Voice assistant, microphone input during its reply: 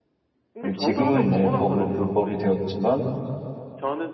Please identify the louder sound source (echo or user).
user